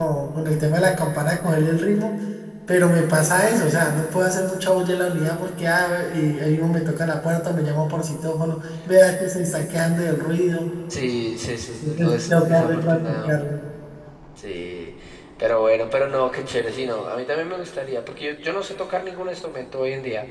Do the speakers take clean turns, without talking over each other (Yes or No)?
No